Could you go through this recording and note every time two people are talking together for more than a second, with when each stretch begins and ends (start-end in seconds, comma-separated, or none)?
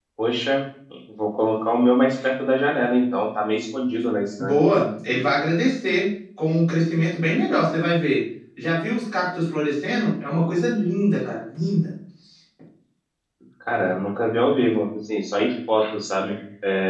none